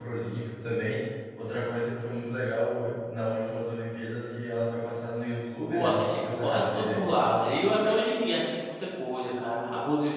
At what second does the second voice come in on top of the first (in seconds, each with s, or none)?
5.7 s